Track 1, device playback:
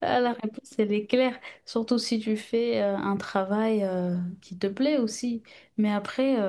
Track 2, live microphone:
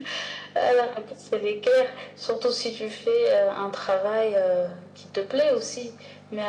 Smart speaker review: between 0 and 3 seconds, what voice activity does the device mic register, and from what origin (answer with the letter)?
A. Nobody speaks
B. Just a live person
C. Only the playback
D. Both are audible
C